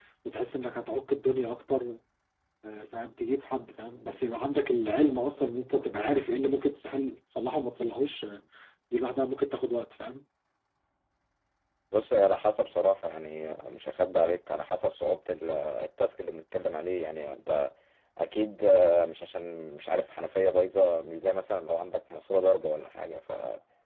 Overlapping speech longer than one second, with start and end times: none

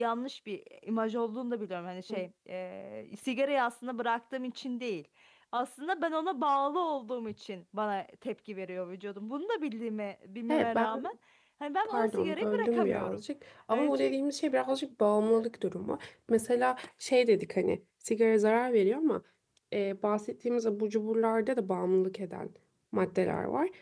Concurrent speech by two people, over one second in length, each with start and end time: 11.8-13.2

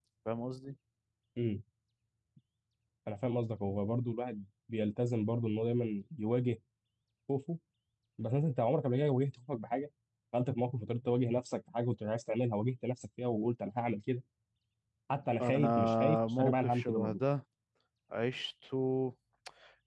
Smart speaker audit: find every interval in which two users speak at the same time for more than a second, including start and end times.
15.4-17.2

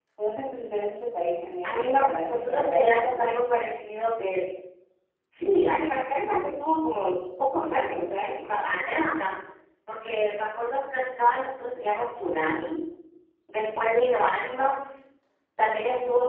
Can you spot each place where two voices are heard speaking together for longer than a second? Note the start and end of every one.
1.6-3.5

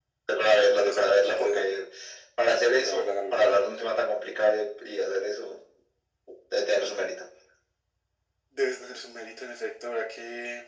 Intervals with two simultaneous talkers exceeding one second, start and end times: 0.6-1.8, 2.7-3.9

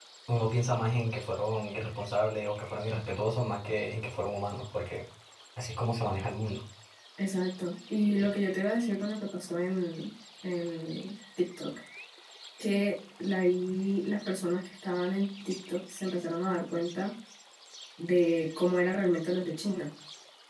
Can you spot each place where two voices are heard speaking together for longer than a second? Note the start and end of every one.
none

